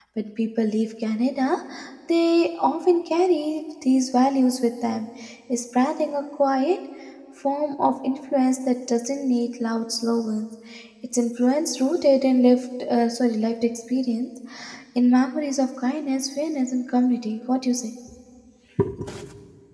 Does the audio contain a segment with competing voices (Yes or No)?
No